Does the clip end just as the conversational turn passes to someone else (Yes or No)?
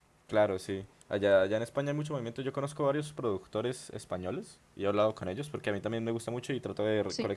No